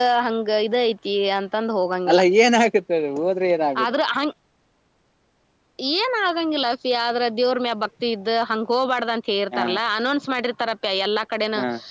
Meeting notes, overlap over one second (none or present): none